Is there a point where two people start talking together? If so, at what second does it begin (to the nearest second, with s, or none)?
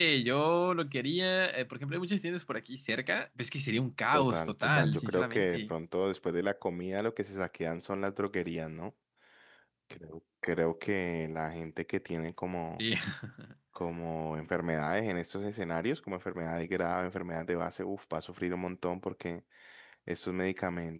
4 s